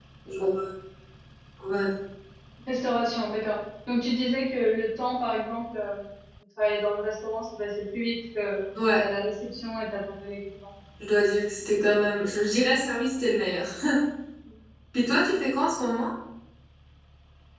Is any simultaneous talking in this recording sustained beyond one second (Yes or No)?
No